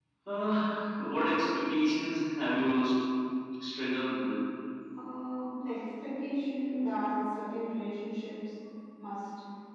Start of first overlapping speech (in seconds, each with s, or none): none